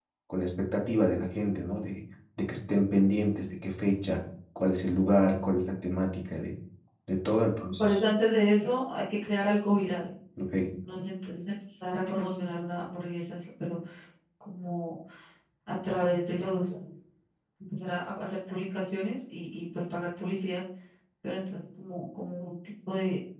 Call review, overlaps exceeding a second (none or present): none